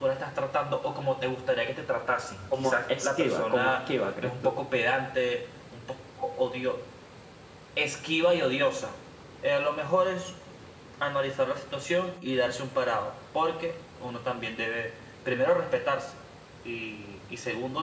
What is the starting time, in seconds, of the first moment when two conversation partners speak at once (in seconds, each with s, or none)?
2.5 s